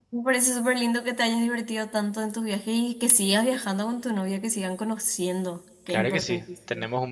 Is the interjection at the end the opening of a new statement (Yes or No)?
Yes